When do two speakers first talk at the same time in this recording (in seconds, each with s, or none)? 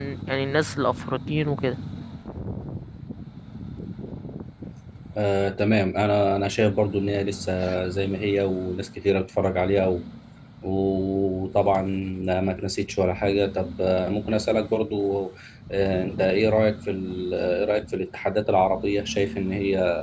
none